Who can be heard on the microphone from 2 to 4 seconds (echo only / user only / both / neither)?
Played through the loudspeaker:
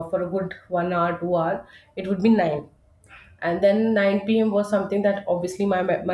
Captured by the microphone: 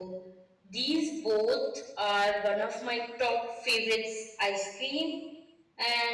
user only